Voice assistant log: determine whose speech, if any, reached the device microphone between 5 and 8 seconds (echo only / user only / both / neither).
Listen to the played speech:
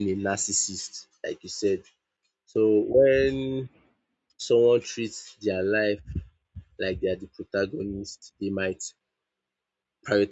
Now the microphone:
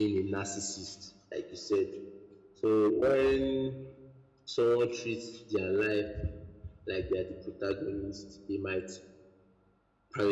echo only